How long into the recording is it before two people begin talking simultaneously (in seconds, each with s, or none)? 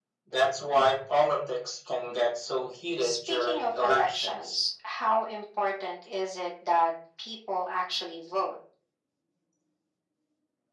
3.0 s